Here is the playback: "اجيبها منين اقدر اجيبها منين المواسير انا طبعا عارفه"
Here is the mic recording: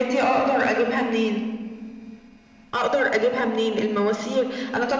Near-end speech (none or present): none